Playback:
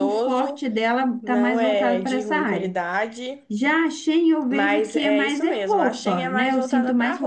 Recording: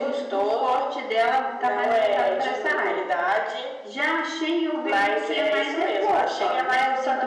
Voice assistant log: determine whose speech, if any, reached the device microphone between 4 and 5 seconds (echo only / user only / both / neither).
echo only